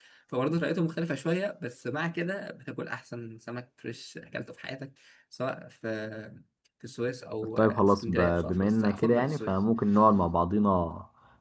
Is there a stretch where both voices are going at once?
Yes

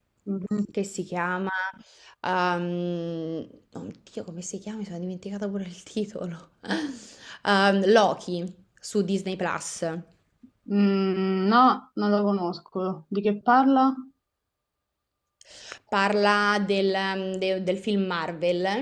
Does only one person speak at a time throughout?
Yes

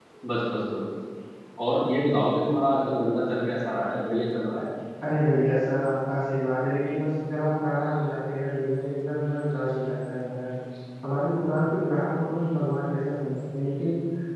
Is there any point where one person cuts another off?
No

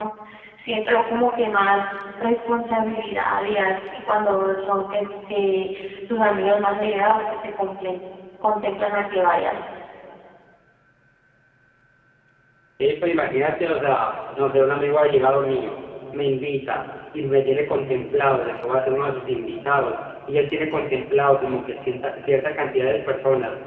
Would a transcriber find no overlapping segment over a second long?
Yes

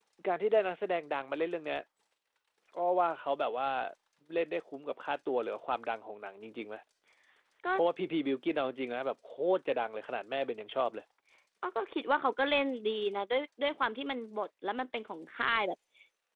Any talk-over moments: No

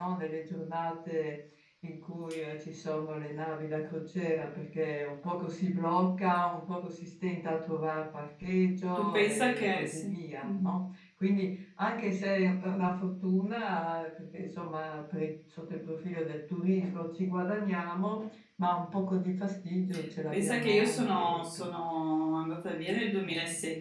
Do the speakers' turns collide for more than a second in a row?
Yes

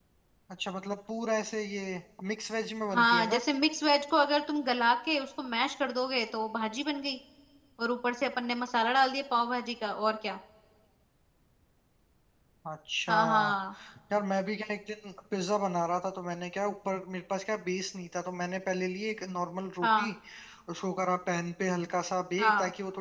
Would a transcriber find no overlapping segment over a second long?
Yes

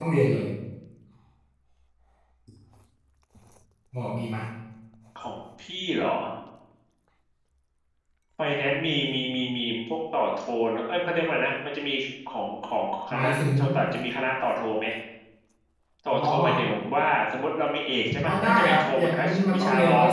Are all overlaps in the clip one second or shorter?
No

